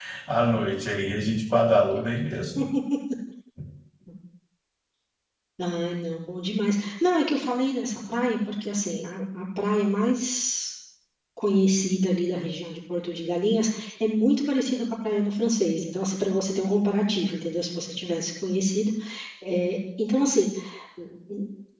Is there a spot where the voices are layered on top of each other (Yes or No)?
No